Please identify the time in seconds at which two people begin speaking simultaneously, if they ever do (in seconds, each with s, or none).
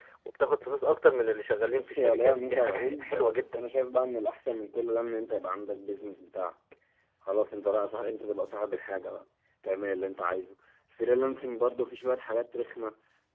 1.7 s